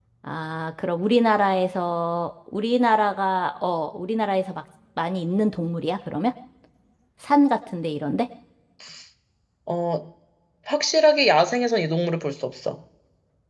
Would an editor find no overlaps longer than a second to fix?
Yes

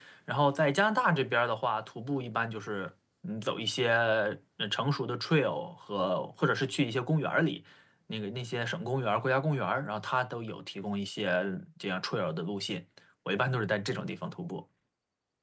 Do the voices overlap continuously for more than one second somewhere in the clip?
No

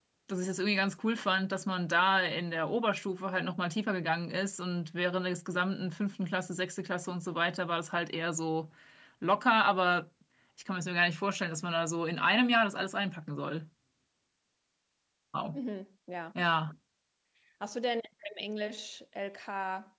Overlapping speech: No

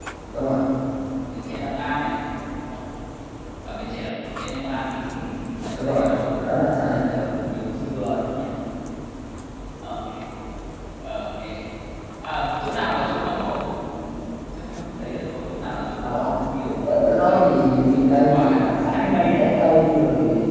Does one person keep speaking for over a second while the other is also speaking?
Yes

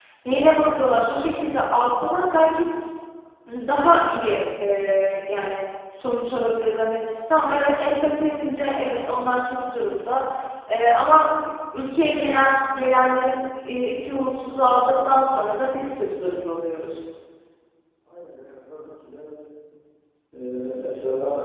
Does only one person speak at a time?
Yes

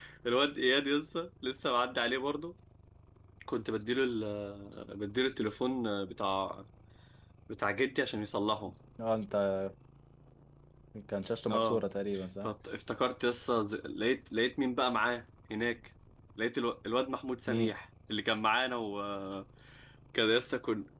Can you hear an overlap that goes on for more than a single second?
No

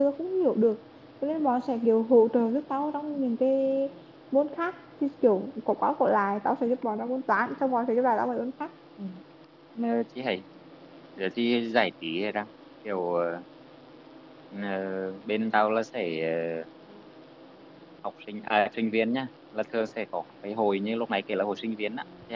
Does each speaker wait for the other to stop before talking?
Yes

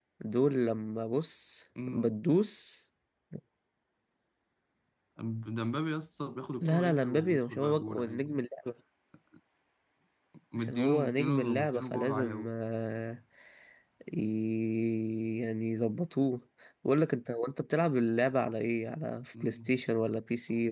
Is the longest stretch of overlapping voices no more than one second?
No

